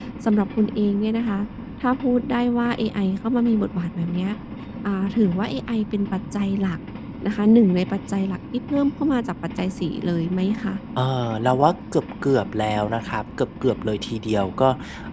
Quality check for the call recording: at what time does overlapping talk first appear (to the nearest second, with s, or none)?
none